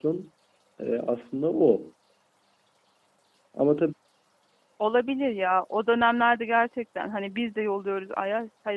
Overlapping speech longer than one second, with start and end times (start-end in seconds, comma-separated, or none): none